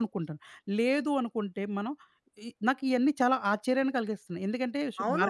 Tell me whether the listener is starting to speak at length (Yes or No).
Yes